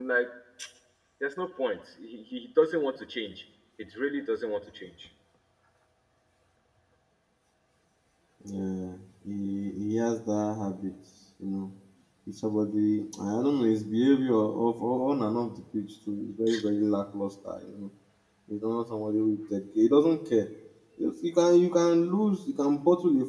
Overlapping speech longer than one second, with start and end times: none

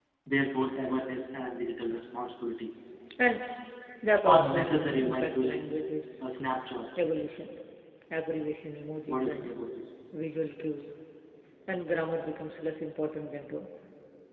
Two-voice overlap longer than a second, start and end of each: 4.2-5.7

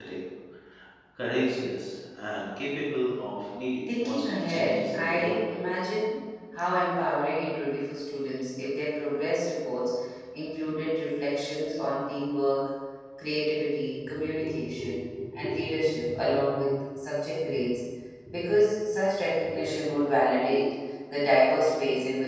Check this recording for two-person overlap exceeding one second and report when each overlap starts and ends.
3.9-5.4

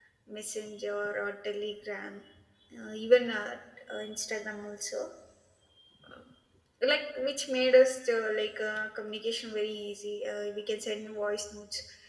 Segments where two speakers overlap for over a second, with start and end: none

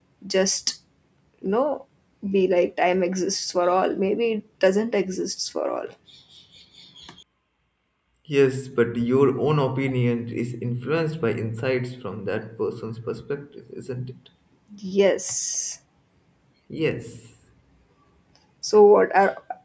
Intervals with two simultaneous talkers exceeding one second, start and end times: none

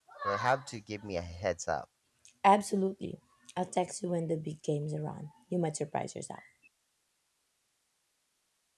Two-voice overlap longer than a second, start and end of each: none

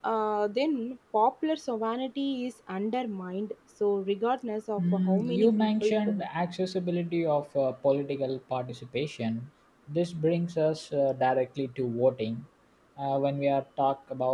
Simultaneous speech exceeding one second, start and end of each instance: 4.8-6.2

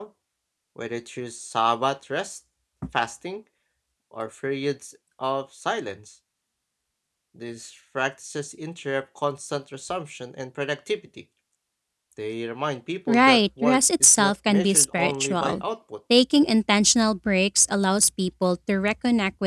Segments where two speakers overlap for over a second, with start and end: 13.1-15.6

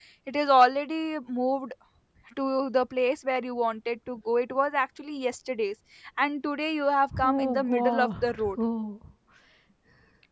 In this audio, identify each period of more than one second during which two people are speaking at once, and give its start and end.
7.2-8.6

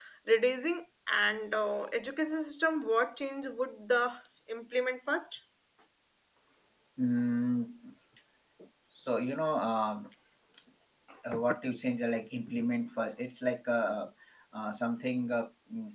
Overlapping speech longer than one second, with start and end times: none

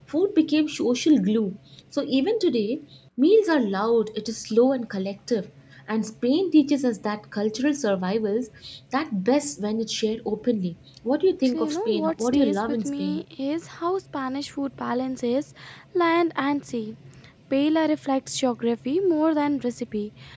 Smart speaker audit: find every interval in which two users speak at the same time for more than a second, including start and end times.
11.4-13.2

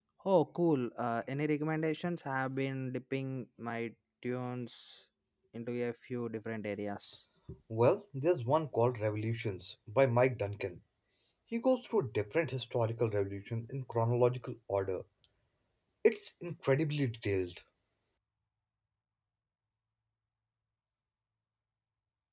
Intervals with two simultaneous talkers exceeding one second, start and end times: none

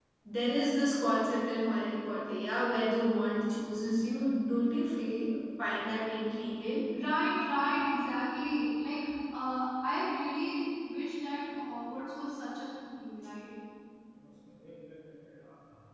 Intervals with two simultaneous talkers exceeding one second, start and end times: none

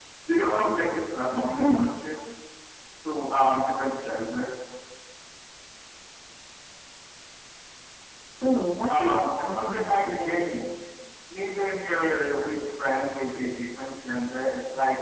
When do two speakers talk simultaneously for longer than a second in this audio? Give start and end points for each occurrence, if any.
9.0-10.4

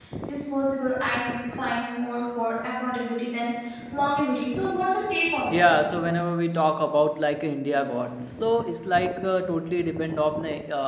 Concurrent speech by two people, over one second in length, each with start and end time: none

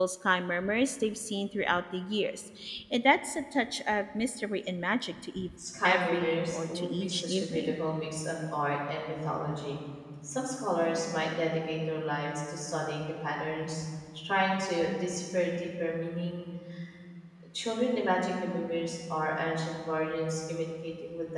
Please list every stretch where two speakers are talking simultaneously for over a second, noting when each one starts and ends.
5.6-7.8

